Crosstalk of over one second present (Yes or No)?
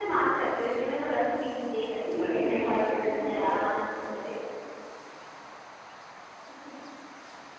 Yes